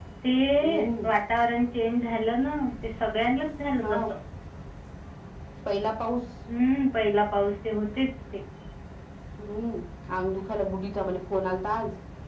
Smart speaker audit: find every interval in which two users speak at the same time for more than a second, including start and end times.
none

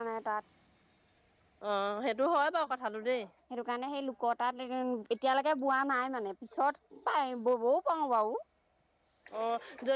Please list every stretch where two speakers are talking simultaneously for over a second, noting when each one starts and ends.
none

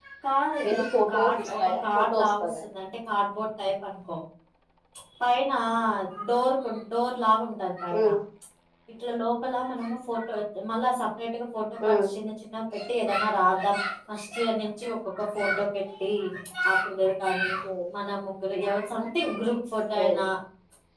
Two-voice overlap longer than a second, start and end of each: 0.7-2.6

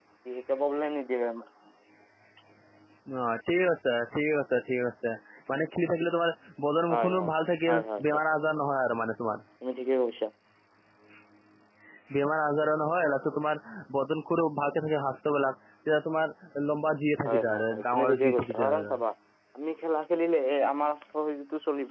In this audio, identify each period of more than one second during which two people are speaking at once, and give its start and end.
17.2-18.9

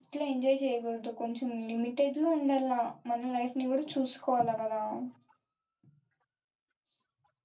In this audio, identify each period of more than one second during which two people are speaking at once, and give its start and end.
none

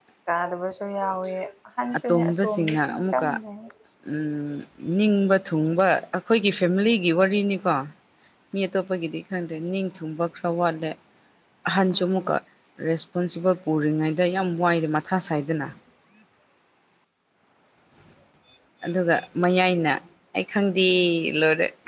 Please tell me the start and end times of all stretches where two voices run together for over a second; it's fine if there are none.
2.1-3.3

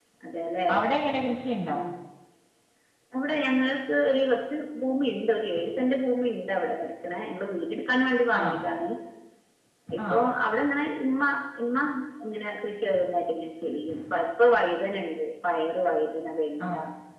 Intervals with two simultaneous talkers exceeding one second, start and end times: none

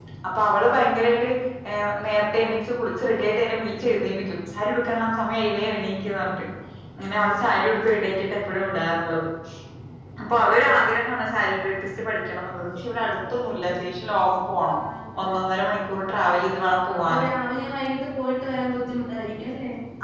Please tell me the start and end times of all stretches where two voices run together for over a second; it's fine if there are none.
none

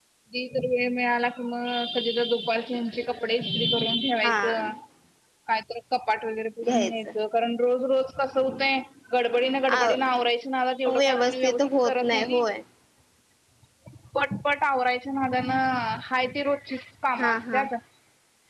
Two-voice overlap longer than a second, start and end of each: 11.0-12.4

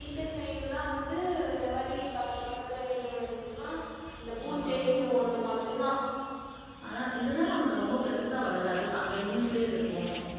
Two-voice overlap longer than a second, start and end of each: none

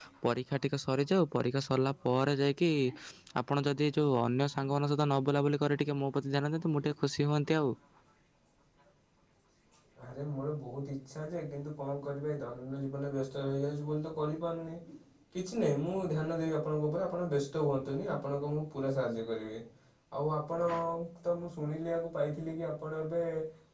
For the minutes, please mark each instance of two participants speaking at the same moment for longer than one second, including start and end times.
none

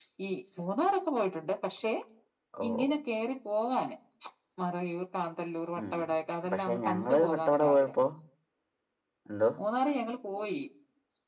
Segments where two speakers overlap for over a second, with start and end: 6.5-7.9

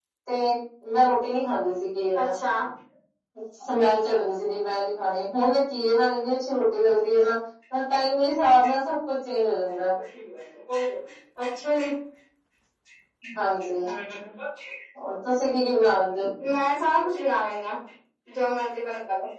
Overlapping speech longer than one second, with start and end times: none

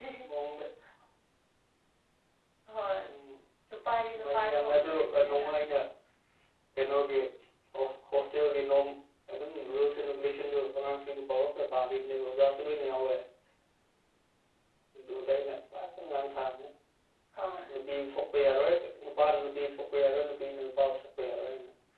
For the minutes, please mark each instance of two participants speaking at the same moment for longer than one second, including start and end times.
4.1-5.5

